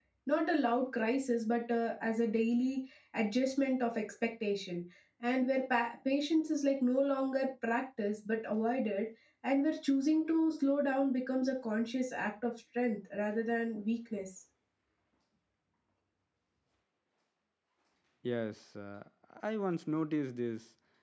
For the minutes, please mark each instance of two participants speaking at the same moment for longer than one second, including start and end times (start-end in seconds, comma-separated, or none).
none